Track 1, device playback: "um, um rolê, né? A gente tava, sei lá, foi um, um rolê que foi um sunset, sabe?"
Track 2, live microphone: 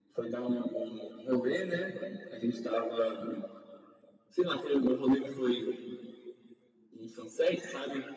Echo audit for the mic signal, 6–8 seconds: echo only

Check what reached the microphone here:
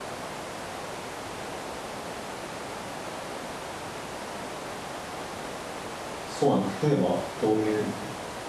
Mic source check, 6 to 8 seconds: user only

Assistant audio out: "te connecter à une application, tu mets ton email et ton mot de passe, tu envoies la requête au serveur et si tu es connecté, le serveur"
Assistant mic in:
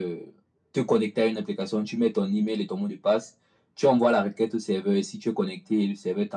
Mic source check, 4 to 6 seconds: echo only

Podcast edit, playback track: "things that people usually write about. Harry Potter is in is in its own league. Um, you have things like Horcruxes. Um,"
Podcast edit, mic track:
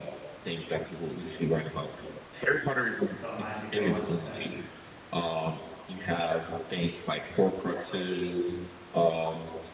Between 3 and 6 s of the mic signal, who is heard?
both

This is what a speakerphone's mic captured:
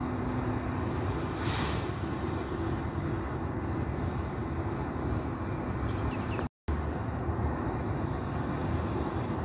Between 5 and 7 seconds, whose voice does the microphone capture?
neither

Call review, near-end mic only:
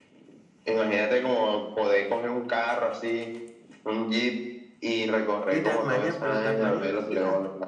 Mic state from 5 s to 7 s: both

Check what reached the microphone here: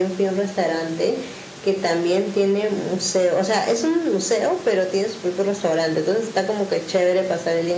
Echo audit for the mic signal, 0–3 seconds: echo only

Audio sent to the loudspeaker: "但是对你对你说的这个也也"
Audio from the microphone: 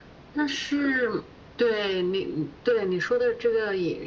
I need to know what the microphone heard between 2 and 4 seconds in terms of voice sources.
echo only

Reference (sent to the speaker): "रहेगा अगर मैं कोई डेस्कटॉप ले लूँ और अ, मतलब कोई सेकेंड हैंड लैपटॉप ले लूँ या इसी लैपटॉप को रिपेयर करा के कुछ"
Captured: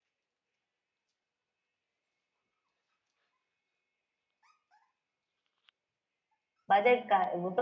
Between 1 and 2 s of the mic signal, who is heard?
neither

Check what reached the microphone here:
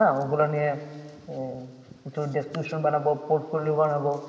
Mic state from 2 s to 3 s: user only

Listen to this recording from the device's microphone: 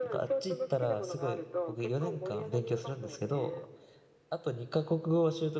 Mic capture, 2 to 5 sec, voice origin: both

